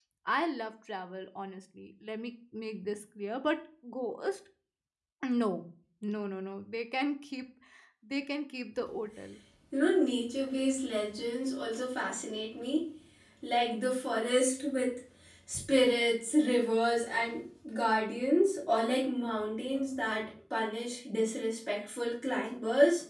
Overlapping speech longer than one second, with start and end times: none

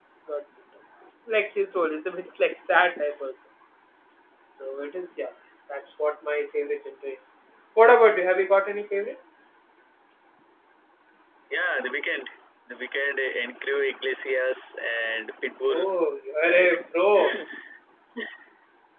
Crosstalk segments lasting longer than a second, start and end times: none

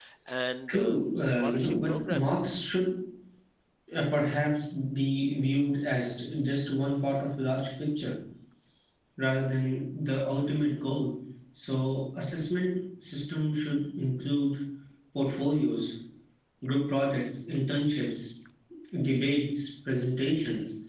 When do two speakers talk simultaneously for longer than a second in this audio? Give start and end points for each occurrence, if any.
0.7-2.5

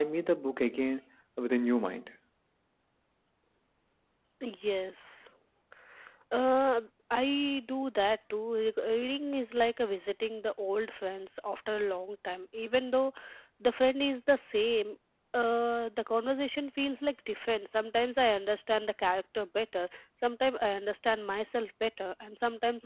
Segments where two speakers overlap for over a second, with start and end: none

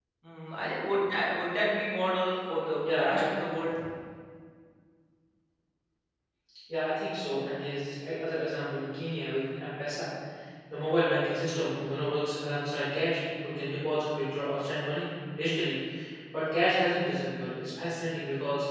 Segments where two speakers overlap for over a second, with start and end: none

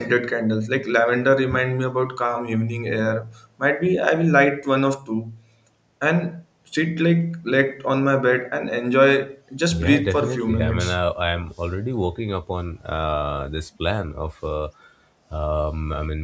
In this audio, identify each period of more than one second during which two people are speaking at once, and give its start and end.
9.7-11.0

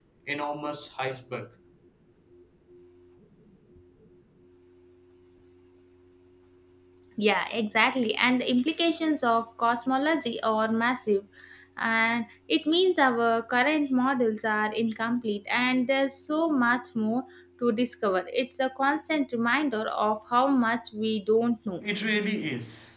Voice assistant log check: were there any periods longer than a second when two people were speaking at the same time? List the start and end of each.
none

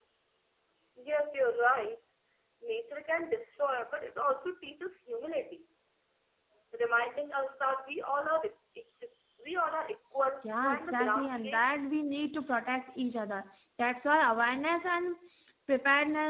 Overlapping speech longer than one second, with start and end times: 10.4-11.6

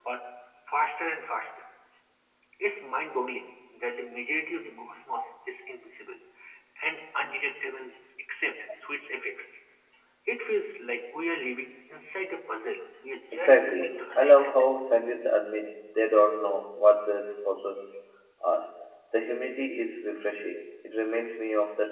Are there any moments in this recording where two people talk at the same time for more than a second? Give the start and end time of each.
13.3-14.6

